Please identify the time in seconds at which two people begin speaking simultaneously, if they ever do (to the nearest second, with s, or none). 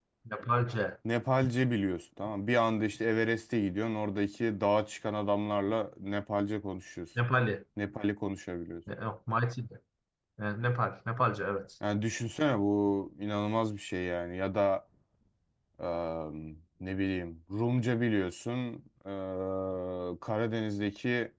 none